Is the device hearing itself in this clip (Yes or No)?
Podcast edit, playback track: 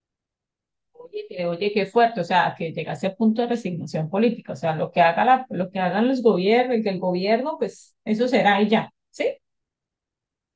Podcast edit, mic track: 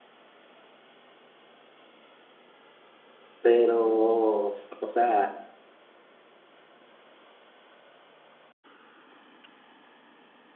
No